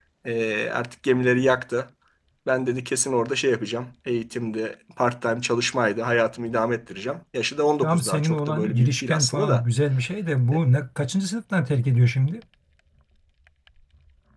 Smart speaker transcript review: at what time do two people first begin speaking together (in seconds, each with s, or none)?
7.8 s